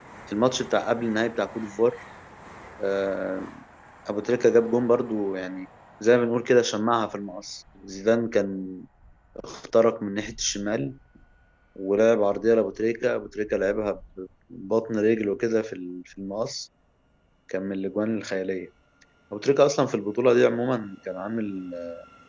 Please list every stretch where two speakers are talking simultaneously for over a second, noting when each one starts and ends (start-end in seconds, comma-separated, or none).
none